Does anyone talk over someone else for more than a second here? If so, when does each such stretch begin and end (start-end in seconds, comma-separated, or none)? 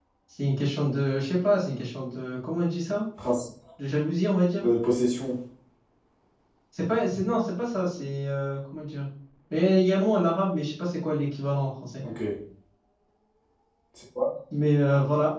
none